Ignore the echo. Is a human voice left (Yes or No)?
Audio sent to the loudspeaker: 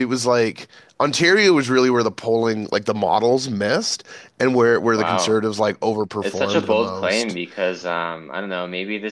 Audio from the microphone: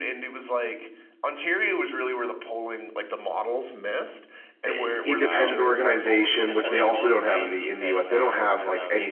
Yes